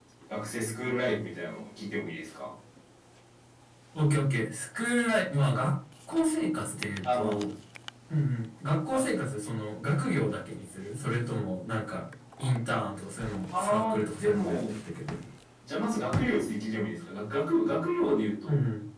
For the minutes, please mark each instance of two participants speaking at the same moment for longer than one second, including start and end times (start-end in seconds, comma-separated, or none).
13.5-14.8